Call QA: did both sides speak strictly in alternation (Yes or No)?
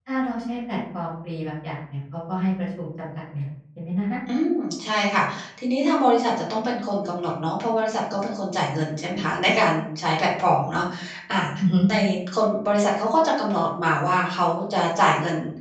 Yes